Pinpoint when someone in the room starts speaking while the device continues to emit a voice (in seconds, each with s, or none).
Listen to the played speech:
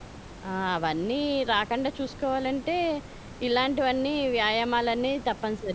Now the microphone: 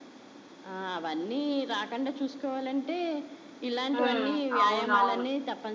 3.9 s